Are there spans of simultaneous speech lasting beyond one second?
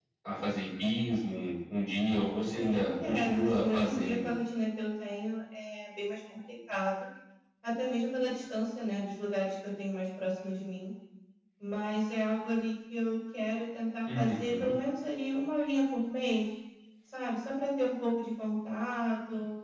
Yes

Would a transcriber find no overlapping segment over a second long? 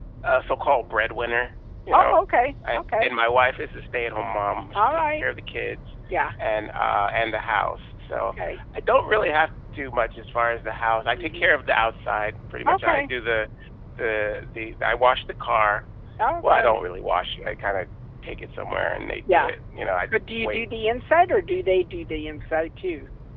Yes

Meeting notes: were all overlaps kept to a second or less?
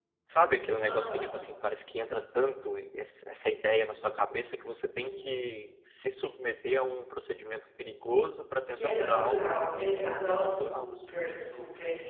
No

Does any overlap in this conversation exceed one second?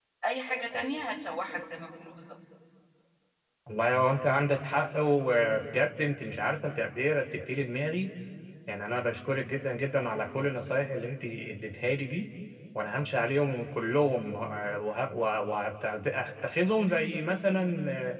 No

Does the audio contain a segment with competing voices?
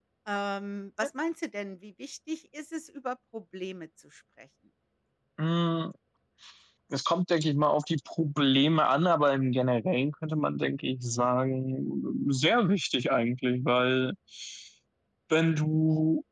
No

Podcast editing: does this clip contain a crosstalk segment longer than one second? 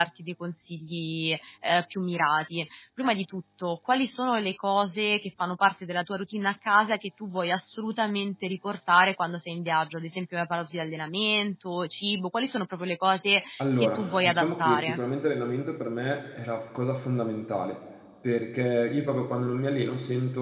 Yes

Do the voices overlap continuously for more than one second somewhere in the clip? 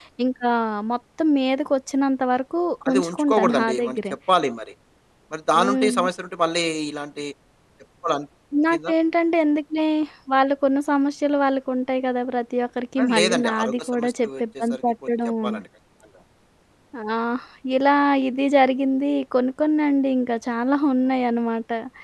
Yes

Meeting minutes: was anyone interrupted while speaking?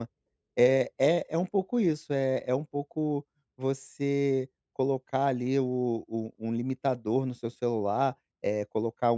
No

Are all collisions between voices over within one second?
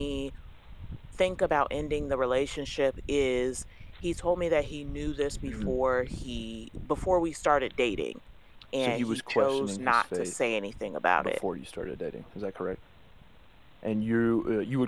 No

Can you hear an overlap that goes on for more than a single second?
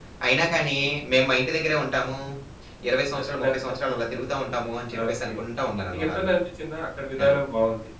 No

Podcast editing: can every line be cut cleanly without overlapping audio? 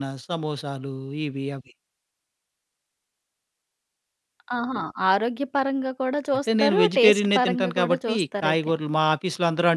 No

